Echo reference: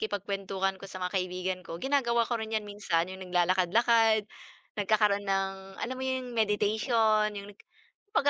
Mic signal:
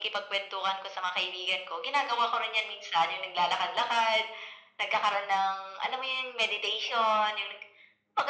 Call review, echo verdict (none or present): present